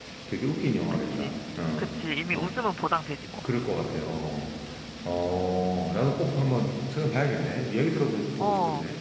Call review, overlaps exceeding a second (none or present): none